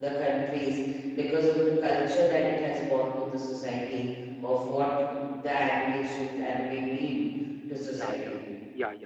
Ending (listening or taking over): taking over